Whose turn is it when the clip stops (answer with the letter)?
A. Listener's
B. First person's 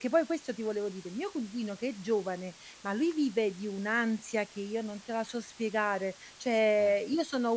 B